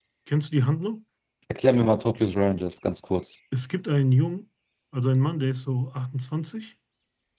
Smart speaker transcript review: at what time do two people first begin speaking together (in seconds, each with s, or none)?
none